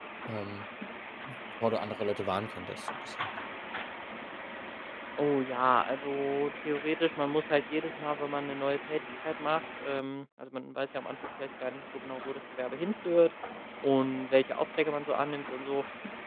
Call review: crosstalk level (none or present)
none